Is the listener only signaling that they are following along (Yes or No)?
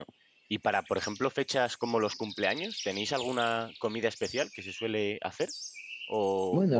Yes